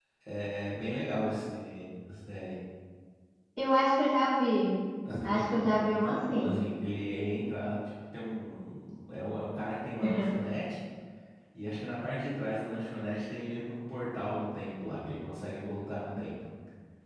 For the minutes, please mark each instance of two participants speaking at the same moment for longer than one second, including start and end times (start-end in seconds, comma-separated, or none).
5.2-6.6